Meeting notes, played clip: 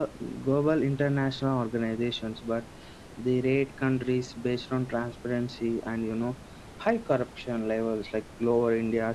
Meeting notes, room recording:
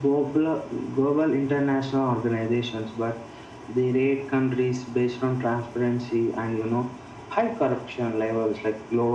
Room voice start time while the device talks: none

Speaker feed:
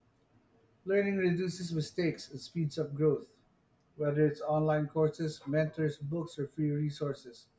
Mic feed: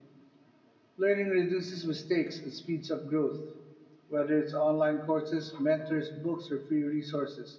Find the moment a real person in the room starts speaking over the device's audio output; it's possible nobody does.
none

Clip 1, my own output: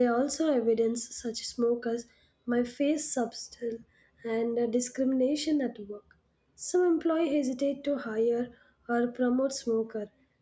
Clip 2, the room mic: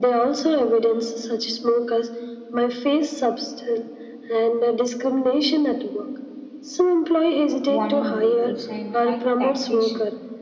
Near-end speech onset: 7.7 s

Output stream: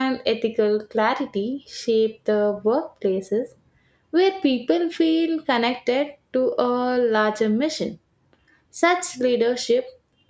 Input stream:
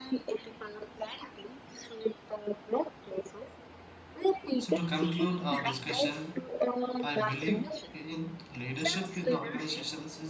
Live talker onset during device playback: 4.6 s

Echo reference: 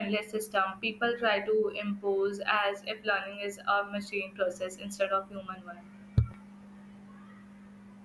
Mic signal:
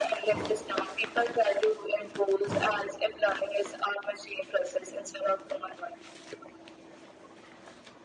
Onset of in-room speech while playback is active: none

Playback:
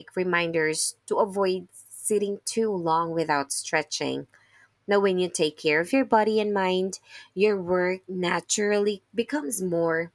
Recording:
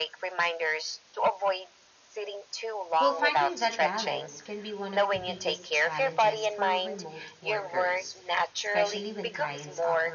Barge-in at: 3.0 s

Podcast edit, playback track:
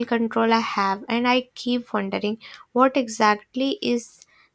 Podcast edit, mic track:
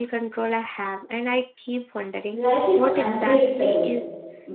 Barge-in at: 2.3 s

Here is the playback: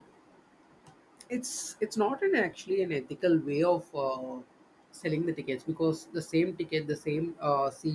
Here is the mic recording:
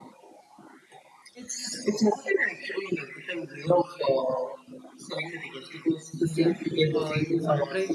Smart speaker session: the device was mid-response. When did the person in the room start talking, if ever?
6.3 s

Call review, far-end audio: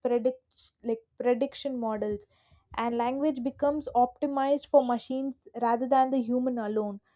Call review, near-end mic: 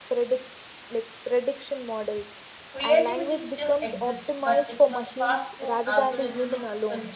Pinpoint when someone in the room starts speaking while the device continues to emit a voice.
2.7 s

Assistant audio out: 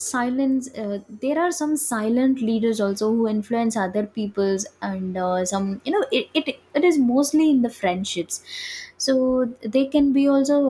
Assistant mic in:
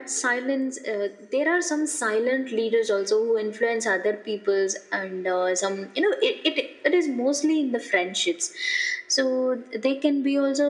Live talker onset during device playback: none

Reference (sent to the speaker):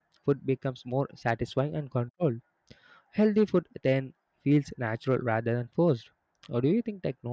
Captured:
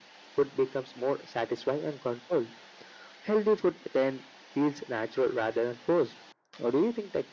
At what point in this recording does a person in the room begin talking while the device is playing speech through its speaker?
none

